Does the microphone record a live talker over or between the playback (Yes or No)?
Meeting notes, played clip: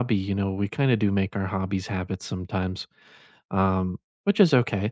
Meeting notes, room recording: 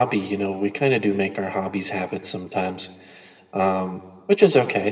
No